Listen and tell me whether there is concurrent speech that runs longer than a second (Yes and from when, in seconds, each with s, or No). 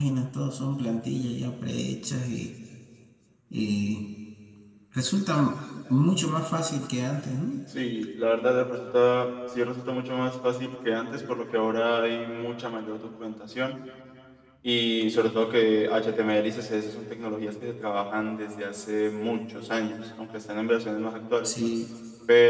No